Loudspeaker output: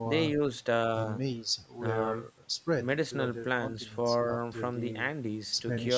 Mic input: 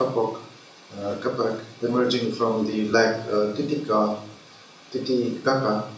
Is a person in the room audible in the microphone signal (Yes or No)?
Yes